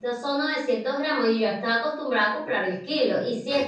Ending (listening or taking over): listening